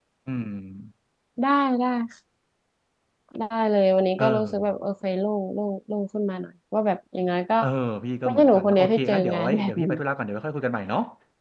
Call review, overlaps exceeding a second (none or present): present